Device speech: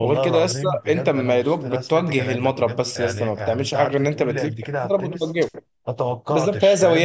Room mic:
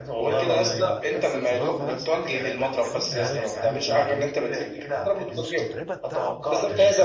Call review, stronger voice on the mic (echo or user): echo